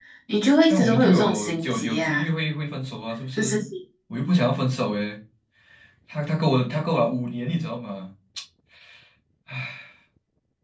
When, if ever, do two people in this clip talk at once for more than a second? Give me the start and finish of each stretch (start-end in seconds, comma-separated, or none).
0.7-2.3